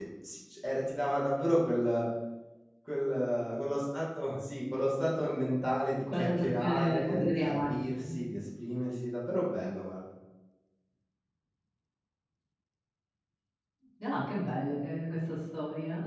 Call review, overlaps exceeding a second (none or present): present